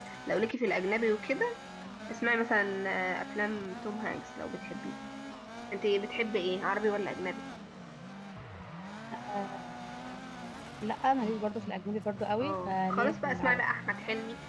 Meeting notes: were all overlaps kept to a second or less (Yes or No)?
No